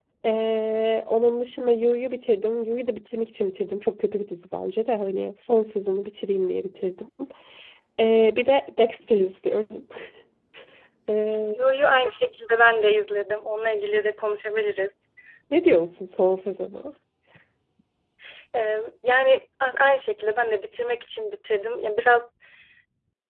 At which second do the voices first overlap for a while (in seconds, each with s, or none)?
none